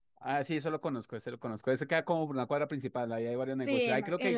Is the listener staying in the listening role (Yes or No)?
No